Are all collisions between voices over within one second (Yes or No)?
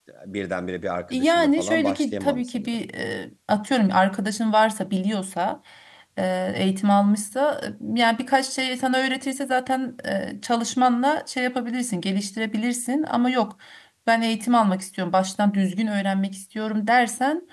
No